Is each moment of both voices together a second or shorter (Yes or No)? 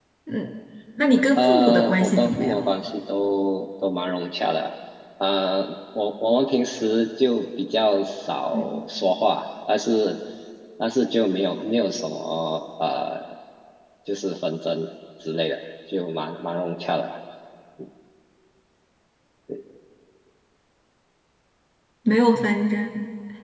No